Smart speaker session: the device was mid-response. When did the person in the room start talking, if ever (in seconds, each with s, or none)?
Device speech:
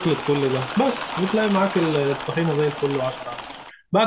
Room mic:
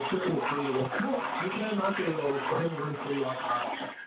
none